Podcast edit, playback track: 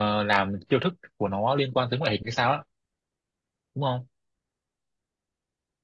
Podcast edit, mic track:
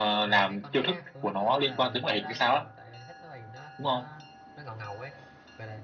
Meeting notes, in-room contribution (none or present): present